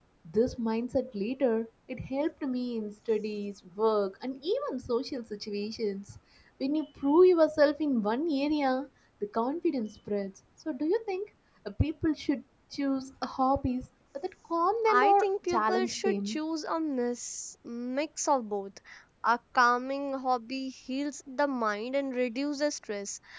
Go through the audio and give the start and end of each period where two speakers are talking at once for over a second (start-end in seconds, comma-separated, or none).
14.9-16.4